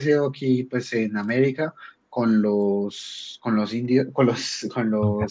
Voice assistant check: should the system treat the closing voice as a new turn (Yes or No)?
No